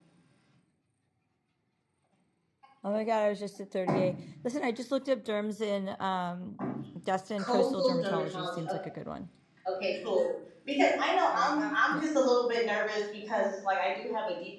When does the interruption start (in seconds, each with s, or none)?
7.4 s